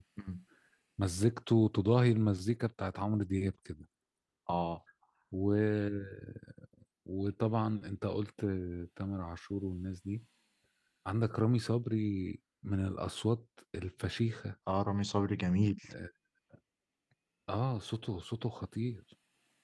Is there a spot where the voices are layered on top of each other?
No

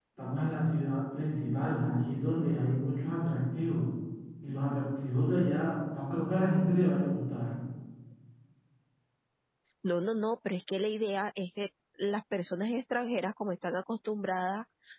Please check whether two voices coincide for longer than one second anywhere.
No

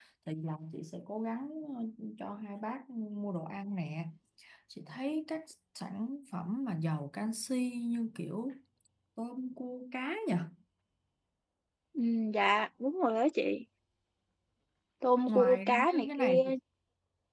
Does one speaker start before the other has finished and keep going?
Yes, from 15.3 s

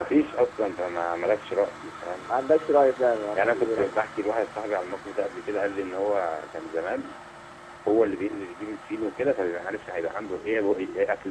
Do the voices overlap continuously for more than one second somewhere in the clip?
No

